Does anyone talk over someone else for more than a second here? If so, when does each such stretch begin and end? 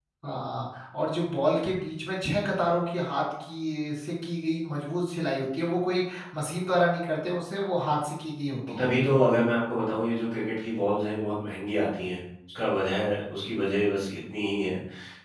none

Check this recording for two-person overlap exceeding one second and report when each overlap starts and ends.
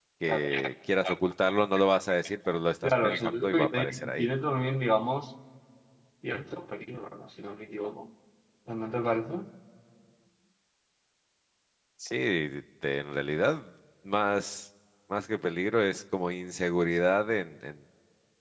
2.8-4.3

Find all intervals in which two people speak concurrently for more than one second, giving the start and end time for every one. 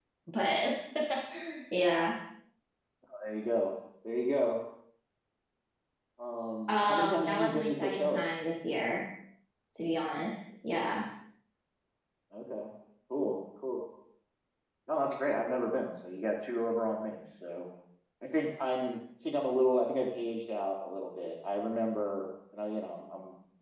6.7-8.3

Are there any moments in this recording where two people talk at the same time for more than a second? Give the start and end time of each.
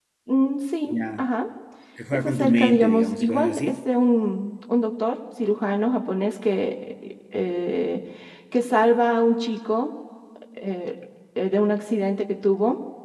2.1-3.7

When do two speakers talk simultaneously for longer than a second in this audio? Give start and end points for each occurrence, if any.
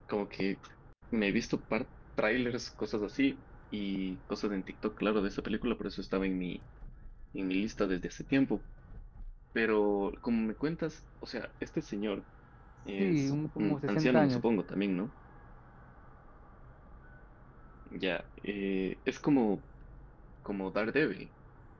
13.0-14.4

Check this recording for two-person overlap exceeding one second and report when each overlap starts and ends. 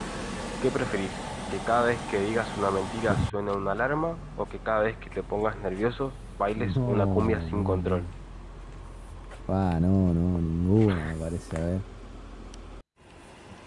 6.6-8.1

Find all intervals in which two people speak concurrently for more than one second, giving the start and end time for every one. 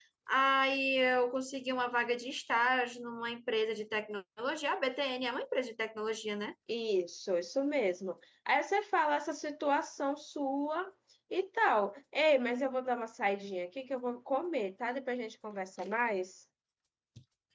none

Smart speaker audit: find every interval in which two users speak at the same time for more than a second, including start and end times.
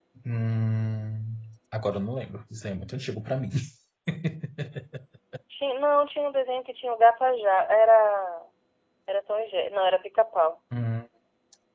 none

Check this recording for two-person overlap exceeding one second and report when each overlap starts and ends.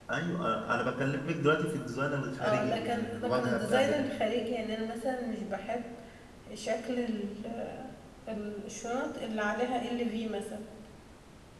2.4-4.0

